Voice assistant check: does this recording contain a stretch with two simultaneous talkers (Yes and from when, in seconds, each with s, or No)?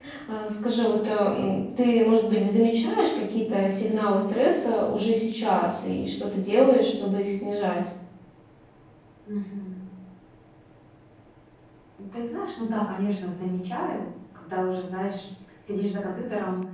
No